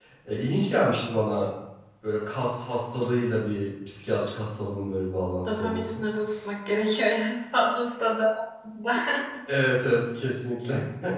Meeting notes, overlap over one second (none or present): none